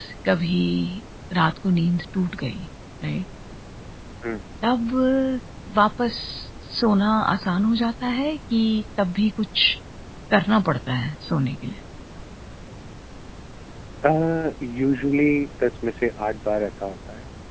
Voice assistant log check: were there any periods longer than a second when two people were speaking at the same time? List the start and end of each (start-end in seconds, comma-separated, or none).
none